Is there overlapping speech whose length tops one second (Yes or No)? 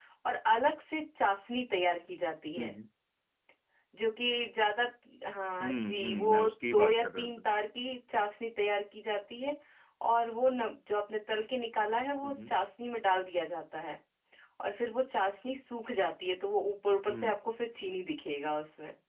Yes